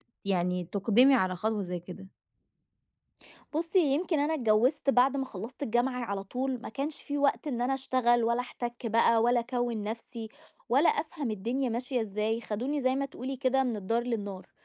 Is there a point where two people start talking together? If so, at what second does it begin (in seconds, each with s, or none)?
none